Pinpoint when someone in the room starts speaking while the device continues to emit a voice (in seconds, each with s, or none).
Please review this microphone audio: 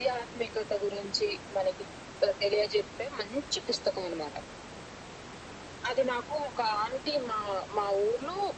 none